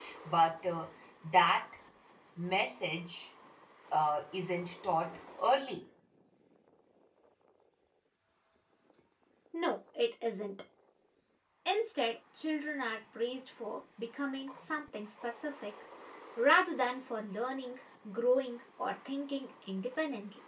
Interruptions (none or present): none